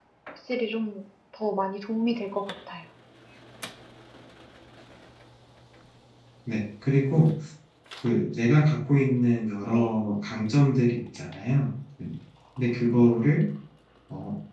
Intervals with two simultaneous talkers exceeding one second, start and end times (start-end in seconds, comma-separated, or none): none